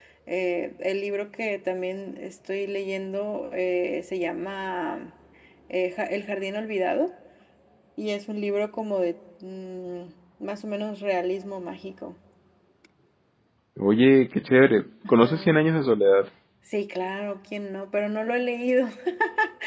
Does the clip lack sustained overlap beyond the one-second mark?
Yes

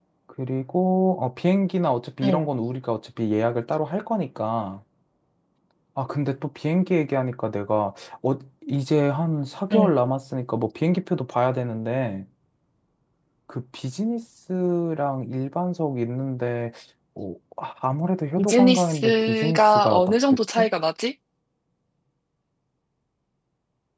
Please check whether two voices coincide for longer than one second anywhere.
Yes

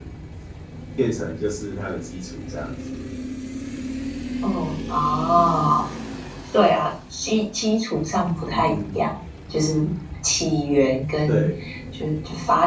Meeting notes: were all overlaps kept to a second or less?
Yes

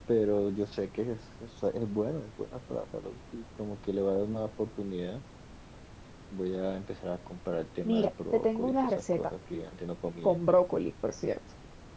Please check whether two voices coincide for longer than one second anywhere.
Yes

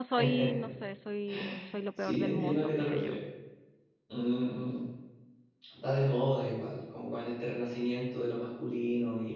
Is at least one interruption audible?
Yes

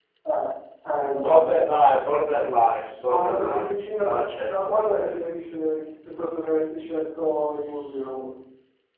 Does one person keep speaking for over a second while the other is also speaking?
Yes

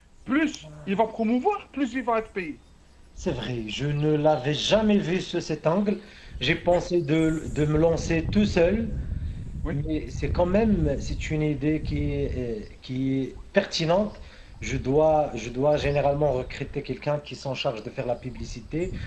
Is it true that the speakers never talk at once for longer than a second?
Yes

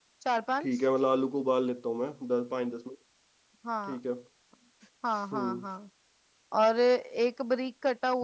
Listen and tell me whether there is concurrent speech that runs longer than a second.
No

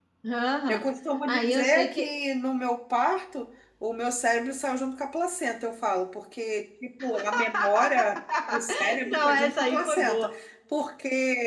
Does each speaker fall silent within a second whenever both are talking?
No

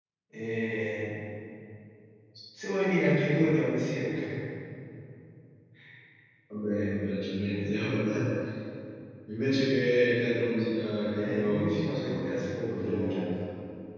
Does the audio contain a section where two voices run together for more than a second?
Yes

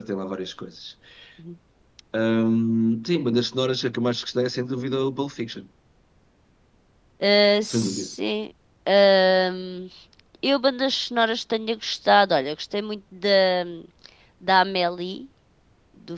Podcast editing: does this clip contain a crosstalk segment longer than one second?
No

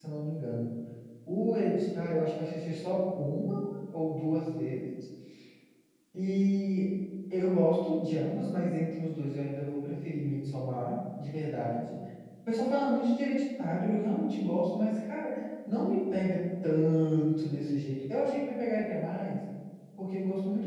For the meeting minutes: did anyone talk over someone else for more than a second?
No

